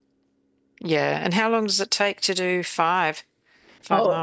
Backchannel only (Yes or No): No